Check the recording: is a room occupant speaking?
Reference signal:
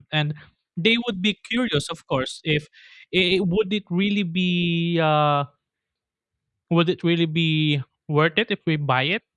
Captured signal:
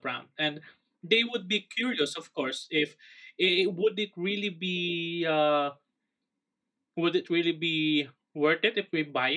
No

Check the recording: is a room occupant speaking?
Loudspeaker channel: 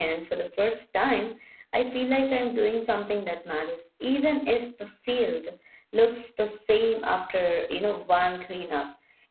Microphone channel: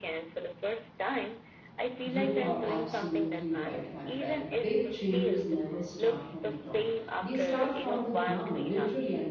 Yes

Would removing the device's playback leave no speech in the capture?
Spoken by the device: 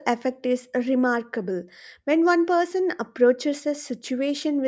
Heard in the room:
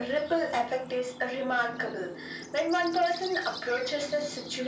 Yes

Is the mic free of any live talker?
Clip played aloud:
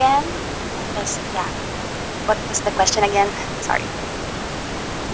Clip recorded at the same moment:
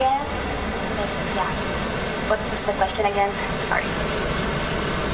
Yes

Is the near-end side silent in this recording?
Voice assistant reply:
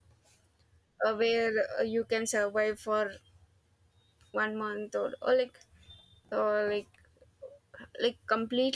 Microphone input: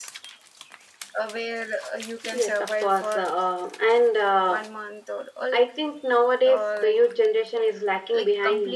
No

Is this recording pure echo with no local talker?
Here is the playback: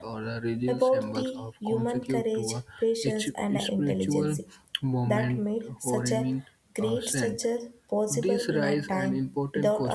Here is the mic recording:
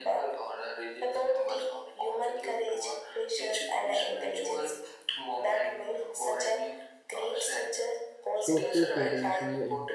No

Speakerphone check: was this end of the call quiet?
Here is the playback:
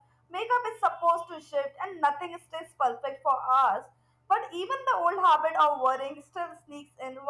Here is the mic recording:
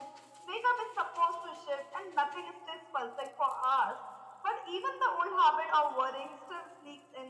Yes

